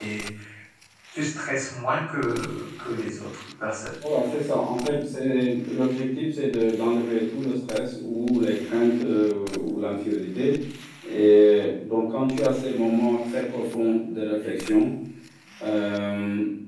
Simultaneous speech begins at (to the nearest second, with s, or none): none